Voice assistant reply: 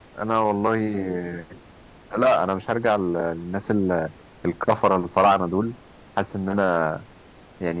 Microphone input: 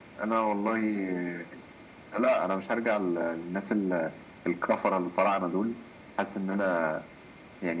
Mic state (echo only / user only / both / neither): echo only